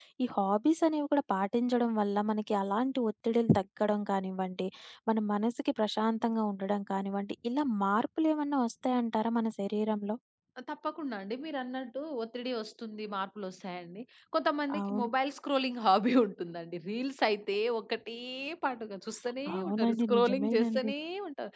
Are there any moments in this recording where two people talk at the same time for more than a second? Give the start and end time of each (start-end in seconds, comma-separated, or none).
19.5-20.9